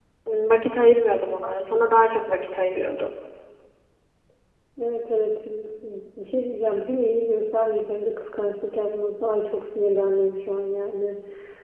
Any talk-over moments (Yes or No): No